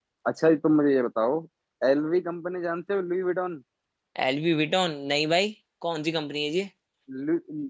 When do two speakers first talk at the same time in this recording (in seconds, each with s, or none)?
none